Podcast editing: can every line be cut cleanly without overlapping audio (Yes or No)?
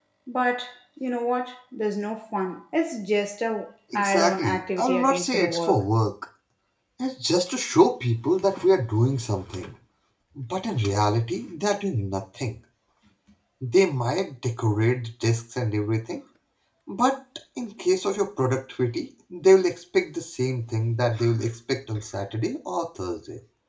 No